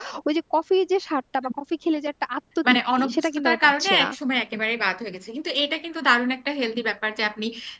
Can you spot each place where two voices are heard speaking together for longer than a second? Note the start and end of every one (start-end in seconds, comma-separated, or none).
2.7-4.1